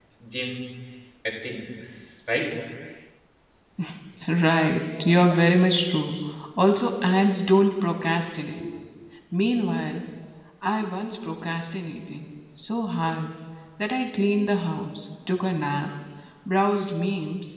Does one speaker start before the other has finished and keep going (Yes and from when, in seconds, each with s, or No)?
No